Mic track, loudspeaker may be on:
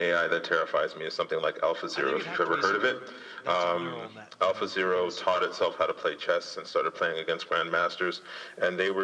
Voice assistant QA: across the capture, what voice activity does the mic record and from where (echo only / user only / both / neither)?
both